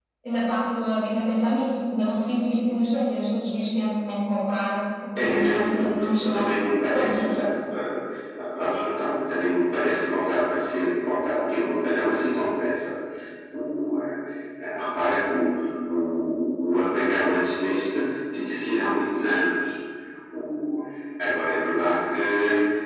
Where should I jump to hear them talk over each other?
5 s

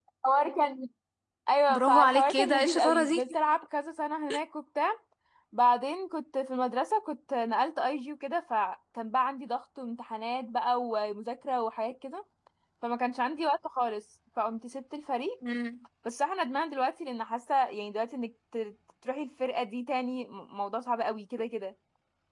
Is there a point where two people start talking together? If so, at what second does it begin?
2 s

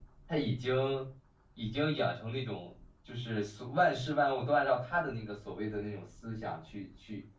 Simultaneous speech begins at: none

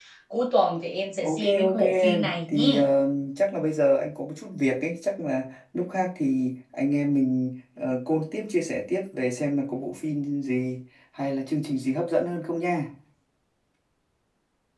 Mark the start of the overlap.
1 s

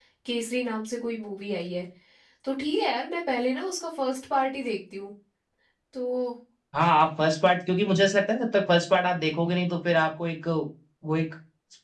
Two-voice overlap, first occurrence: none

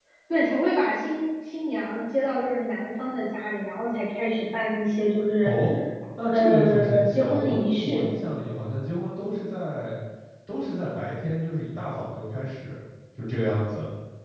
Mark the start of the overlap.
6 s

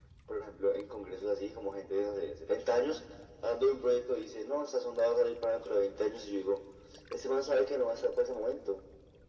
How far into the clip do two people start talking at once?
none

